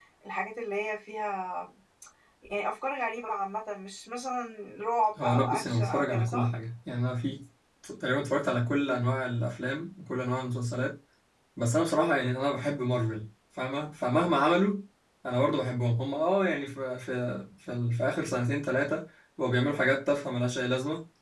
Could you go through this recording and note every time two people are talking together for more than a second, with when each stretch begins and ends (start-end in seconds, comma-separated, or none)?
5.2-6.5